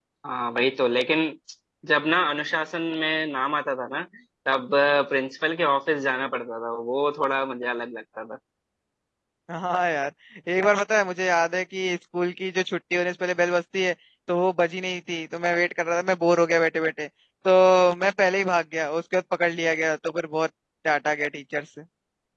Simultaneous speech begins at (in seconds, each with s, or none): none